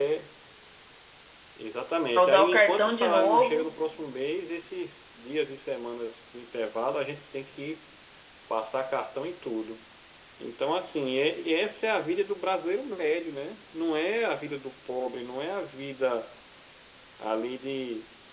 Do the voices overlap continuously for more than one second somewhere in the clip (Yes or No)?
Yes